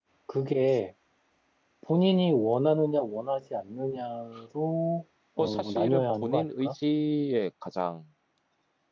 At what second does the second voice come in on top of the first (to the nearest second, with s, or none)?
5 s